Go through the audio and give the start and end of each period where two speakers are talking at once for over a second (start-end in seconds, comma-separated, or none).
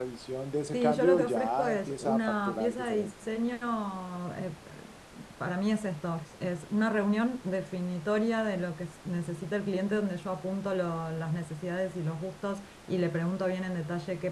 0.7-3.1